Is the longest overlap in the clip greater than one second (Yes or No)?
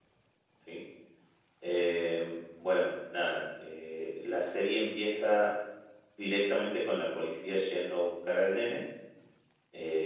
No